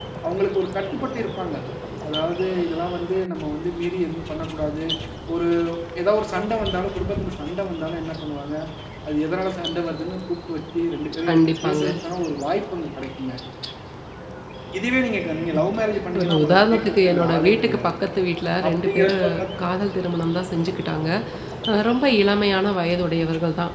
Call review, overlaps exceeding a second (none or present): present